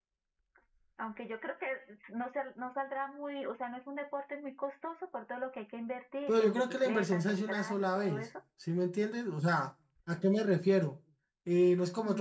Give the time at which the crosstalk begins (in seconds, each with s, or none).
6.3 s